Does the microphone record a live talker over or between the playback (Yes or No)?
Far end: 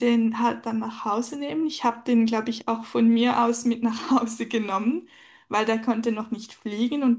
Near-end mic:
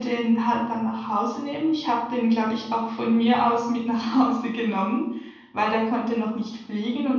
No